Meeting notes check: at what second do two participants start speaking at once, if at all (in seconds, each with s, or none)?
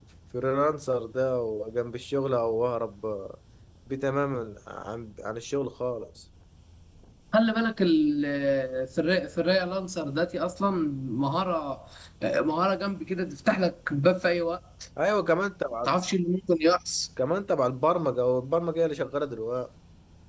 none